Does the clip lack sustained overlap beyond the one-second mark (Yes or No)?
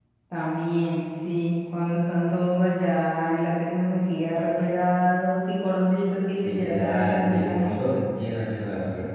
No